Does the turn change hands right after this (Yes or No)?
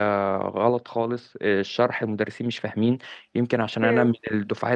No